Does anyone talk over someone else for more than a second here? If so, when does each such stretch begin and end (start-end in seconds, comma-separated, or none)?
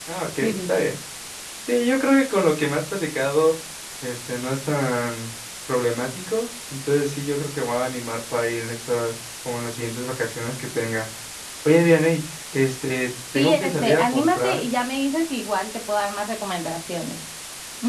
13.3-14.6